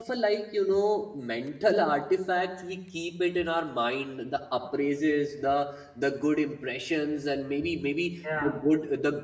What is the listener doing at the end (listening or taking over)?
listening